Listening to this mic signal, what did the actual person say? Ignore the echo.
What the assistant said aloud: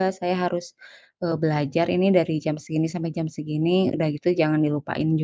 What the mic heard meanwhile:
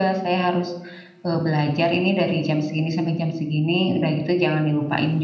none

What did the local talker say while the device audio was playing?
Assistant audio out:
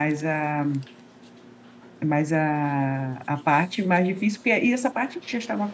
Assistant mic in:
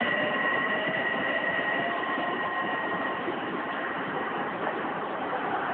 none

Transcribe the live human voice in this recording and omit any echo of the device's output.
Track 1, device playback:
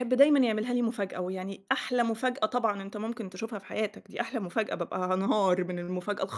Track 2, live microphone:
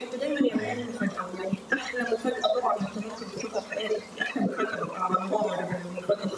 أيوه.

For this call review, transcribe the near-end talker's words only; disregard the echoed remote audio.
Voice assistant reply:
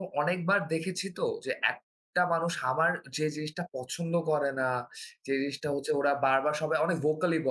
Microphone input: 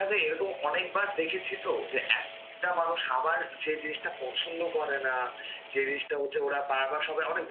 none

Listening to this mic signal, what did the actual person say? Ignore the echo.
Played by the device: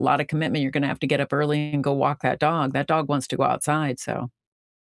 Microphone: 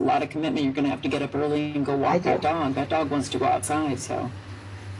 I do.

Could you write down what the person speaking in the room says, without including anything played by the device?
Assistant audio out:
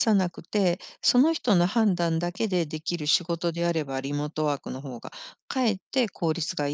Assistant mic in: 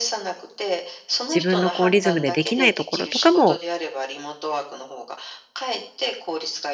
自分のこうリズムでできないところとかも、

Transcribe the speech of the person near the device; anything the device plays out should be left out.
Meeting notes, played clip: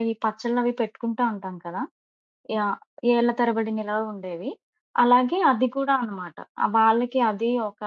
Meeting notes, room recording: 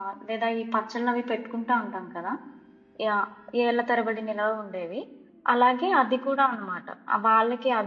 none

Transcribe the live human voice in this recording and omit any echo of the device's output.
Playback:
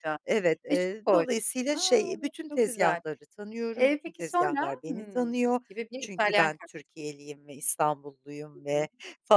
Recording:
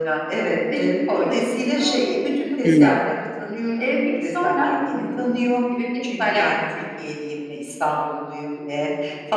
Hıı.

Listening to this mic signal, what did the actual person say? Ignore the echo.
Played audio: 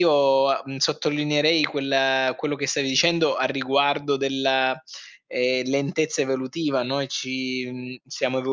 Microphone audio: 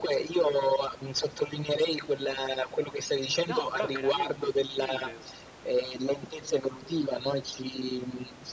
No, però veramente sopprime.

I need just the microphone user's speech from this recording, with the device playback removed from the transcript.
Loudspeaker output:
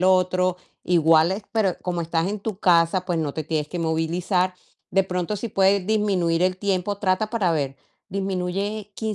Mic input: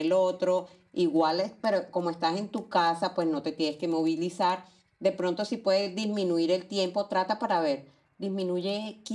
none

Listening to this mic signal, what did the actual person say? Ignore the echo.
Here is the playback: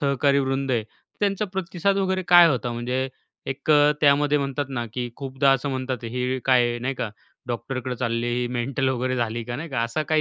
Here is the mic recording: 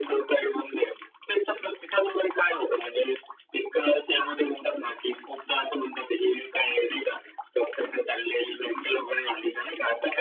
none

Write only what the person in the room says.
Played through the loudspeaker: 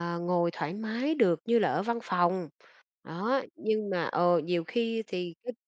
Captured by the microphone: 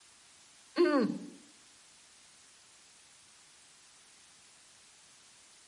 Ừm.

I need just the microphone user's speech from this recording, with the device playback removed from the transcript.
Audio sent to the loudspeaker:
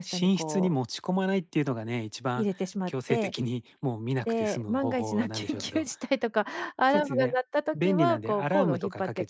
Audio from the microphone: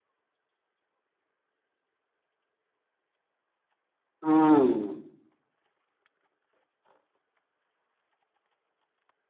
うーん。

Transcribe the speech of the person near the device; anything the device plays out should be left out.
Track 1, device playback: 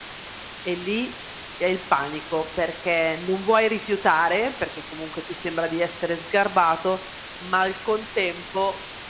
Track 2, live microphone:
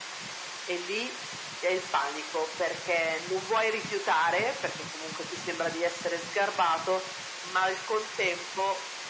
none

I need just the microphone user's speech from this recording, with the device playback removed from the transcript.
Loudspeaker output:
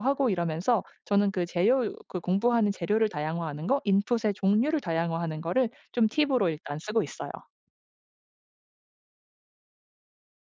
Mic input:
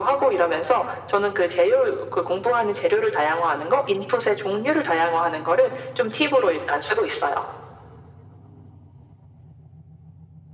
none

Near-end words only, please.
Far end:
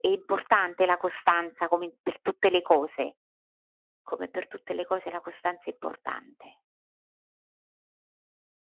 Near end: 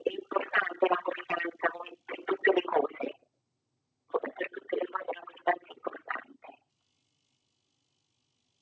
none

